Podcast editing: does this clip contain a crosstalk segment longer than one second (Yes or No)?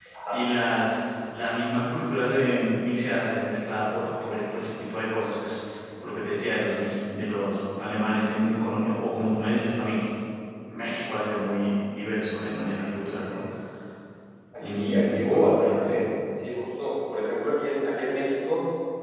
Yes